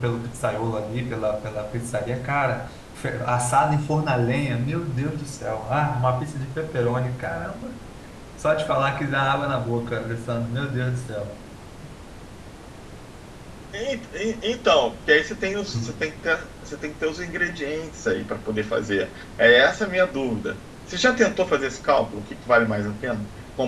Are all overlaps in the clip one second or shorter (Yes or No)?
Yes